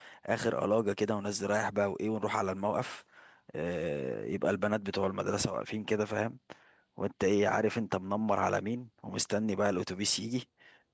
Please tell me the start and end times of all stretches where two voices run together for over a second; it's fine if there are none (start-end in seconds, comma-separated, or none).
none